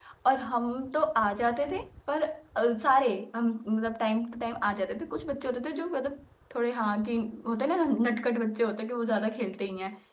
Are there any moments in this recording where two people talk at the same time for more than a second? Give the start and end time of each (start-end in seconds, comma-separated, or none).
none